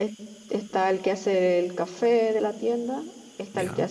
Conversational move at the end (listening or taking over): listening